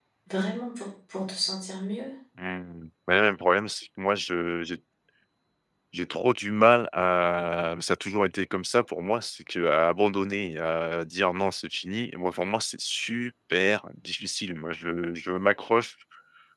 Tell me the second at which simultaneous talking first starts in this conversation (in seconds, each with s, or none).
none